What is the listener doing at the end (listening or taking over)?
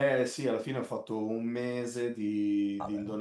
listening